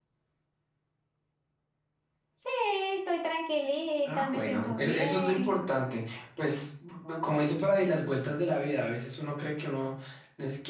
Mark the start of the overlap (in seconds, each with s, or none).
4.0 s